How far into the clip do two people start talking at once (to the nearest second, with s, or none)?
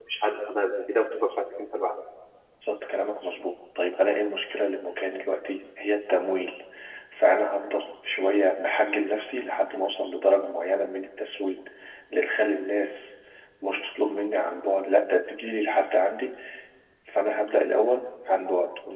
none